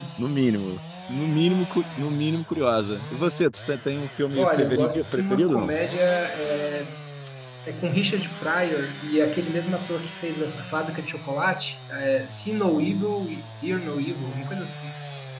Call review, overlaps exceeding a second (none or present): present